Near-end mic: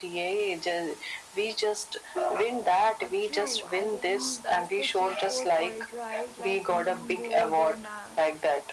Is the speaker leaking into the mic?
Yes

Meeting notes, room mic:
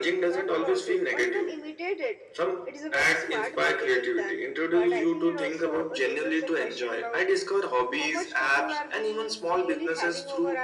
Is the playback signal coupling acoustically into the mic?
Yes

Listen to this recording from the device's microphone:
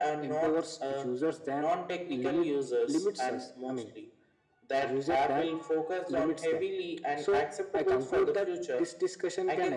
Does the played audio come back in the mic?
Yes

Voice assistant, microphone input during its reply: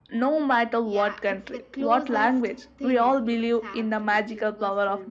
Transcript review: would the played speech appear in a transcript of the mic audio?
Yes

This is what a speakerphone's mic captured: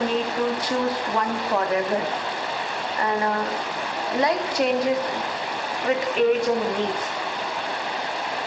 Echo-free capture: No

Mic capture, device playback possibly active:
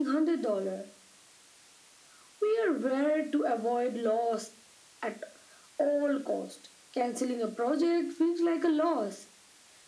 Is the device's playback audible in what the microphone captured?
Yes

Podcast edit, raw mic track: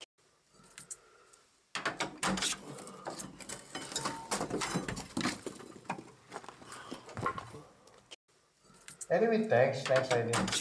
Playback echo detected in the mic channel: No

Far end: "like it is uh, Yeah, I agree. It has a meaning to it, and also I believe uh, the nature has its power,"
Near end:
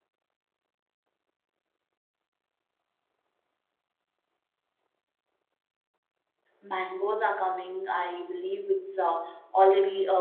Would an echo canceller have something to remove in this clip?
No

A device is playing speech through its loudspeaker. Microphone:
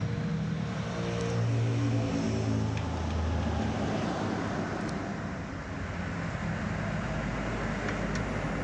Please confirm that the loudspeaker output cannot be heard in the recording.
Yes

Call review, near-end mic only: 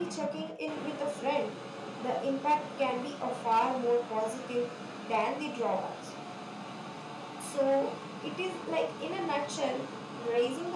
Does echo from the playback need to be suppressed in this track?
Yes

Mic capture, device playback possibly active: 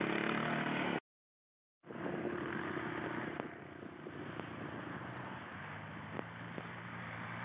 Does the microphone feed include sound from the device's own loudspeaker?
No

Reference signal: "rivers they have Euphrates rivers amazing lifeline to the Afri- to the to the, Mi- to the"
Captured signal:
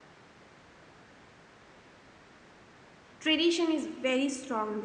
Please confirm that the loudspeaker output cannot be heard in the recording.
Yes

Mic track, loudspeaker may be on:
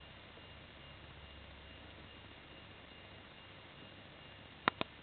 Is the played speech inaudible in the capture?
Yes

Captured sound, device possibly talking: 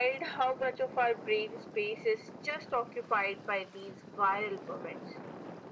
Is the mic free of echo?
No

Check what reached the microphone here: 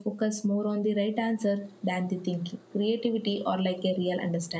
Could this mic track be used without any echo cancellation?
Yes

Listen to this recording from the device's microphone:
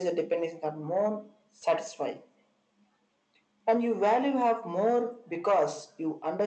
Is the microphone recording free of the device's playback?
No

